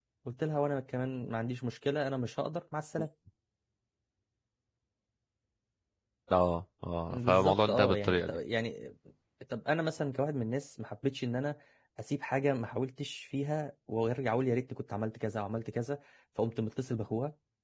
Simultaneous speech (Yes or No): Yes